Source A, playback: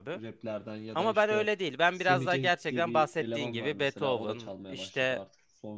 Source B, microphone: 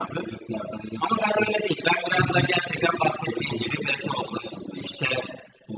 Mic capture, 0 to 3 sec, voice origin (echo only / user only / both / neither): echo only